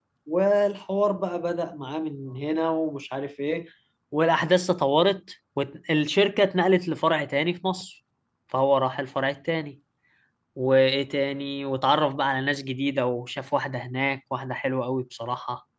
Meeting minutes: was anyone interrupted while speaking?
No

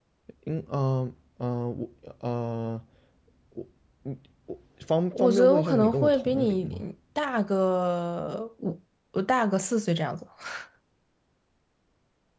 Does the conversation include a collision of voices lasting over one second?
Yes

